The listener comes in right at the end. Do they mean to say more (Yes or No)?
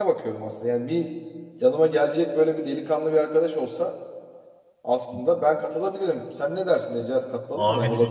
Yes